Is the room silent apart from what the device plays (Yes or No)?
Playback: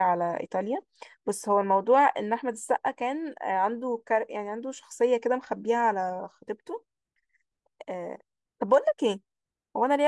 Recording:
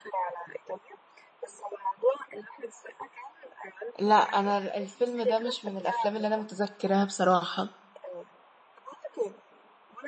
No